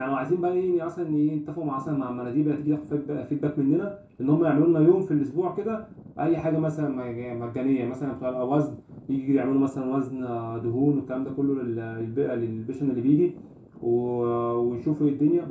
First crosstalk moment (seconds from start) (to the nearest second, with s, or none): none